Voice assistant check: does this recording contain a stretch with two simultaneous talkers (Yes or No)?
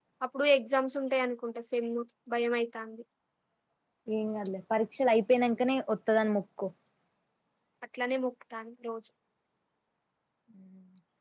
No